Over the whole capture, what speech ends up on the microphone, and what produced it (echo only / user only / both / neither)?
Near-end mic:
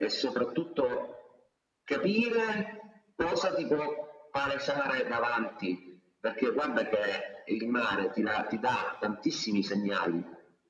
echo only